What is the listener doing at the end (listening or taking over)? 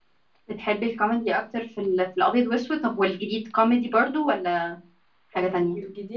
taking over